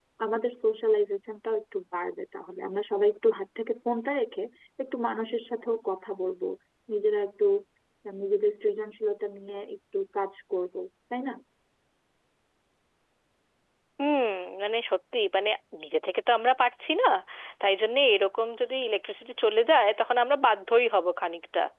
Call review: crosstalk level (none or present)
none